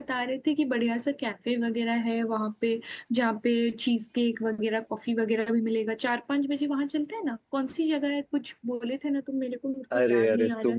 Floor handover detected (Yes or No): Yes